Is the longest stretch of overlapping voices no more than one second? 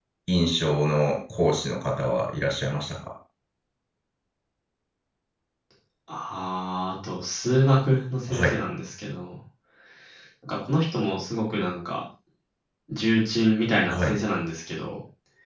Yes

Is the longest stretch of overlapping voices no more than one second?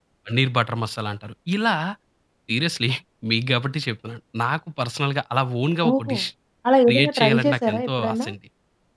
No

